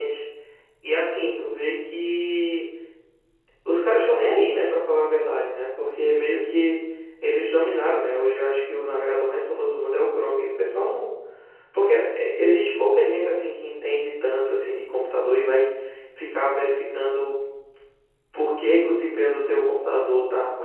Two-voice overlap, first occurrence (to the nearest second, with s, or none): none